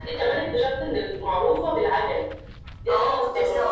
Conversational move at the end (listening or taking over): taking over